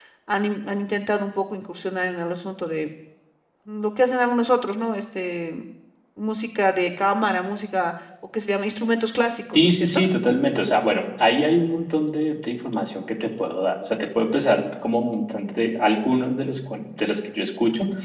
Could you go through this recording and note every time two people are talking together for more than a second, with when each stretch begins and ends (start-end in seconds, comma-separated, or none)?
none